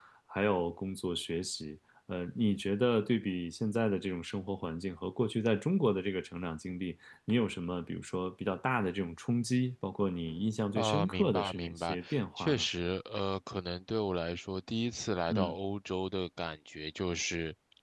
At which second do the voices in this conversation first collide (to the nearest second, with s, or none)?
11 s